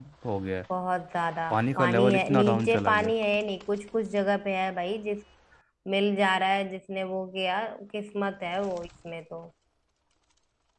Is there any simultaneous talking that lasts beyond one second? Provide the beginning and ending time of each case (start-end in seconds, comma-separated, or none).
1.5-3.1